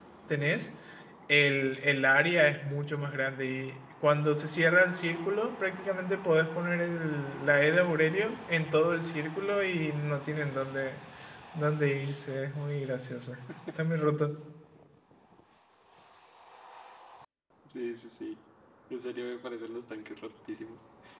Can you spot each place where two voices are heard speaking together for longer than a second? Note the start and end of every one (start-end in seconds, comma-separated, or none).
none